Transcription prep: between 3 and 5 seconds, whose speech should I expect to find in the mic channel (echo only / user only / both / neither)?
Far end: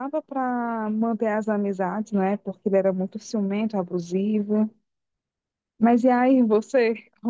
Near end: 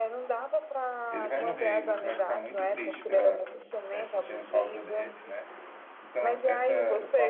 both